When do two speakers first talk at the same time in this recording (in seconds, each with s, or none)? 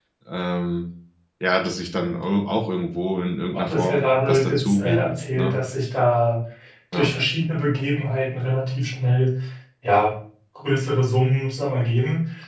3.5 s